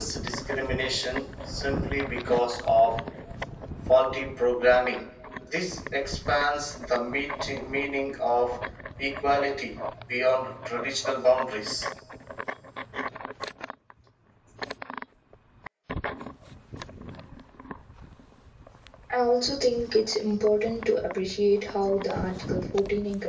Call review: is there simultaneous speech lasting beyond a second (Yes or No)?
No